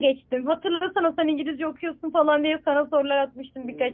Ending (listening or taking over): taking over